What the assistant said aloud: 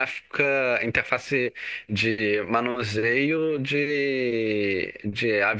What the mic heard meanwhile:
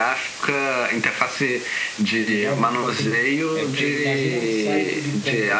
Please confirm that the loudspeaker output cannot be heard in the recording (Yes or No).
No